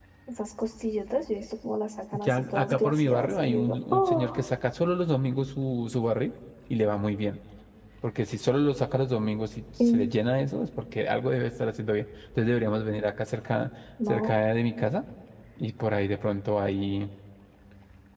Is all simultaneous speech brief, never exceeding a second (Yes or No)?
No